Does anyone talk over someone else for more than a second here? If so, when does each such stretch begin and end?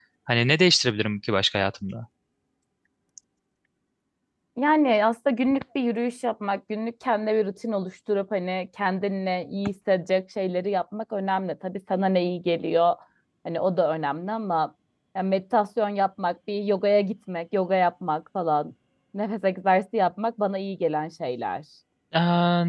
none

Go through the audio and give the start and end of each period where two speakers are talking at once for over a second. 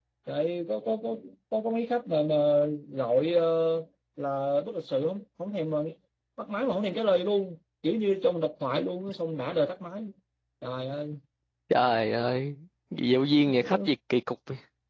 none

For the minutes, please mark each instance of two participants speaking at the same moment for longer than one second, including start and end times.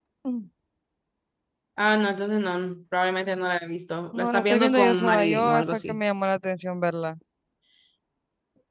4.1-6.0

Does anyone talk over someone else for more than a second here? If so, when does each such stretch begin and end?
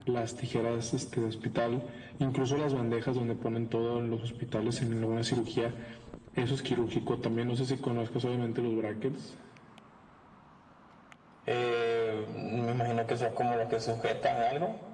none

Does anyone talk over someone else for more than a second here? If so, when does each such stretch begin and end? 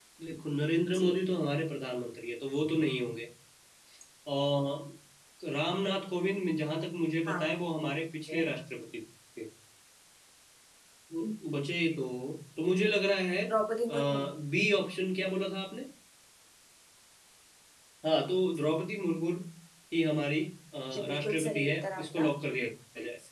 20.9-22.3

